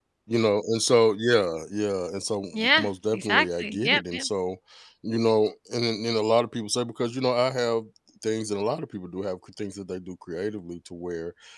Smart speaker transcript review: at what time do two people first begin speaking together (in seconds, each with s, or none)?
2.5 s